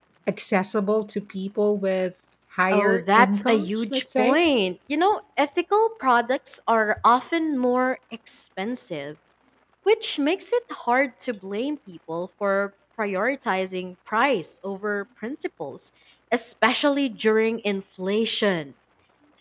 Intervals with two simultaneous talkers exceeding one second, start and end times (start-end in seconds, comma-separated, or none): 2.7-4.4